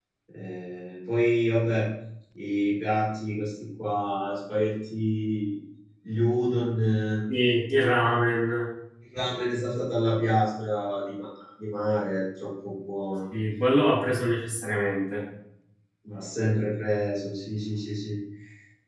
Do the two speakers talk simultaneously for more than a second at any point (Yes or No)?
No